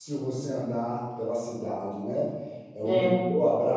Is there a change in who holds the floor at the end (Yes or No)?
No